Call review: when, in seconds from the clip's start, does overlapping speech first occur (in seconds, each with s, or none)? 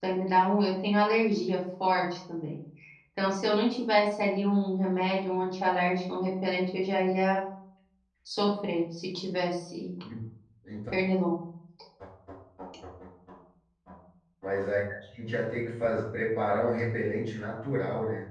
none